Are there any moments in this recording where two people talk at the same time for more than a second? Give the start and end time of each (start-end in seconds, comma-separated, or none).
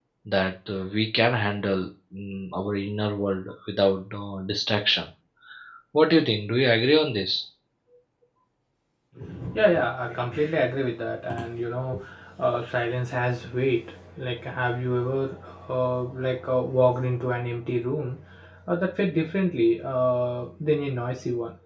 none